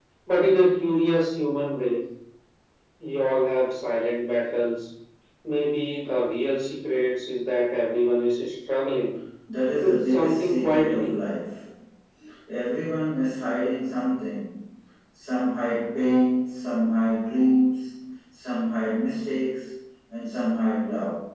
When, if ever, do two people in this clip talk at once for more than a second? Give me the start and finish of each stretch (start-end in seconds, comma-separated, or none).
9.8-11.2